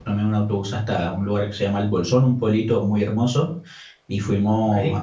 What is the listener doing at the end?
listening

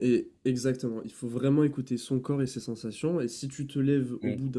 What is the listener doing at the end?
listening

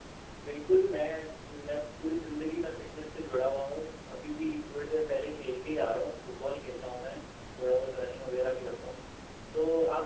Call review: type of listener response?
listening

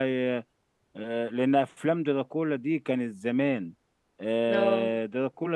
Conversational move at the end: listening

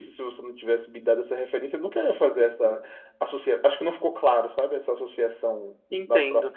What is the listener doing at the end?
taking over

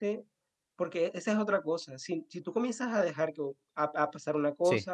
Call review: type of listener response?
listening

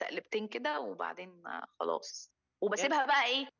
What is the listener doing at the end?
listening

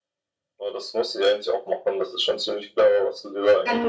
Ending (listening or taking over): taking over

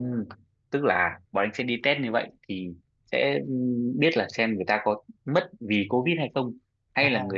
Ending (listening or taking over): listening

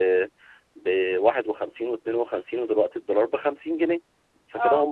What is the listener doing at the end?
listening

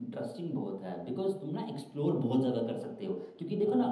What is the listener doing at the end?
listening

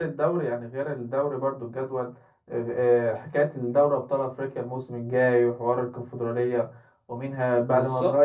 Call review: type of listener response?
listening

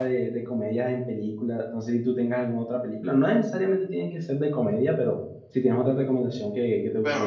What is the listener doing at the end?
taking over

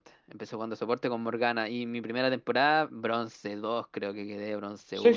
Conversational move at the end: taking over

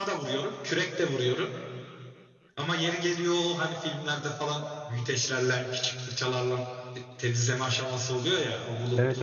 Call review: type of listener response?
listening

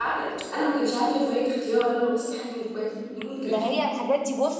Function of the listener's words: taking over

